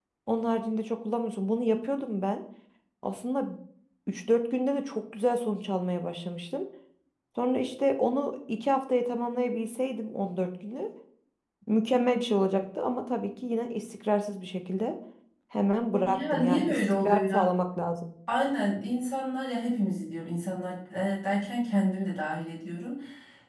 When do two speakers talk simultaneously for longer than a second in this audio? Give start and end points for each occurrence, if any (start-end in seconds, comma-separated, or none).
16.0-17.5